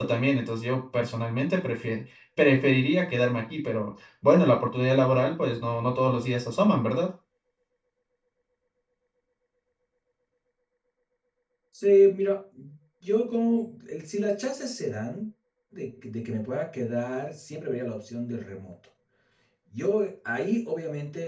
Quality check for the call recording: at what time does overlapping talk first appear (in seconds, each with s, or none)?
none